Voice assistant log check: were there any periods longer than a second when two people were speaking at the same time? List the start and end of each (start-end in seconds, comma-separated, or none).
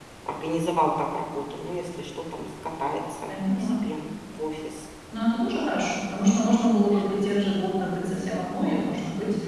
none